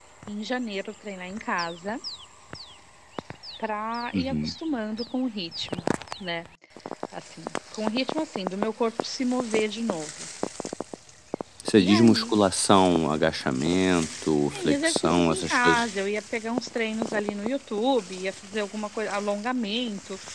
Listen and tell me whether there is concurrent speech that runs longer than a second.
Yes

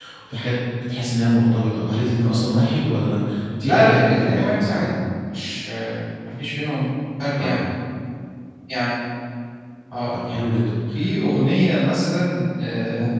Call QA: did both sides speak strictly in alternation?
No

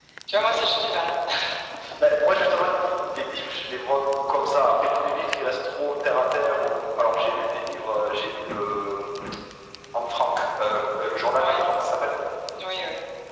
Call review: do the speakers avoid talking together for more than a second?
Yes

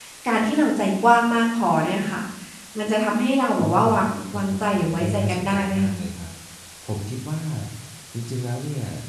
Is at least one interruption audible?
Yes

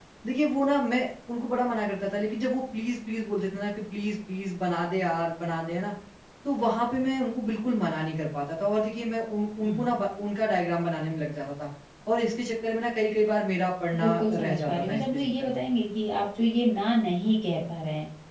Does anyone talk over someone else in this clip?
Yes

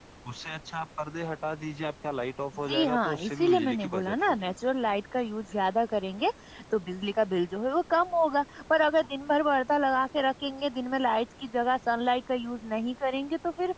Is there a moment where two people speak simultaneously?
Yes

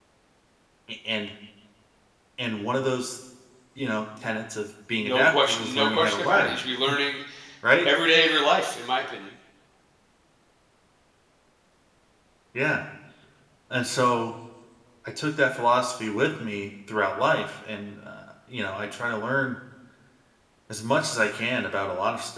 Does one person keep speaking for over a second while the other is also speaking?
Yes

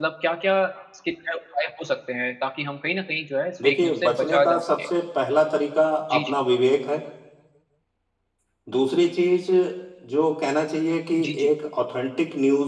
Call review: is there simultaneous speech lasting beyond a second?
Yes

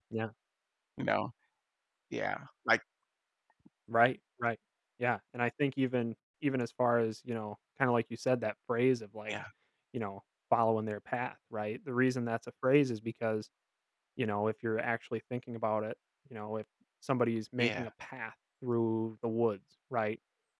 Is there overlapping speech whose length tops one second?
No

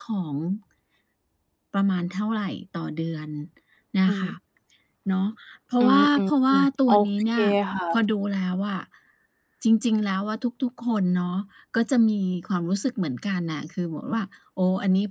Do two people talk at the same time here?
Yes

